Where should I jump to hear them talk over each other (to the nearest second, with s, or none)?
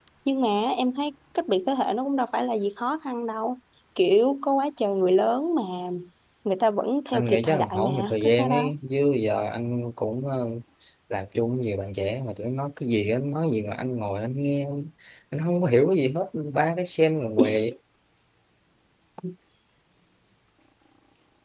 7 s